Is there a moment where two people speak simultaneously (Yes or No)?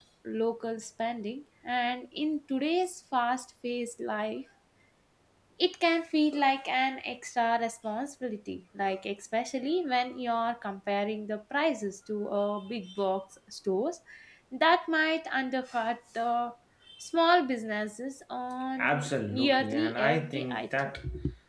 Yes